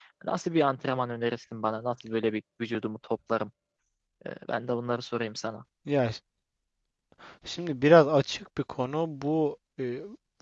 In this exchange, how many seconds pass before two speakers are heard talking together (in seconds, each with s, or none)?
none